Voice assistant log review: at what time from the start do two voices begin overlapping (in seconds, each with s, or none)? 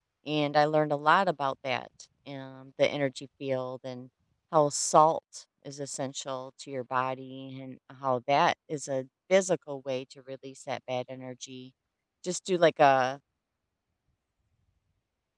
none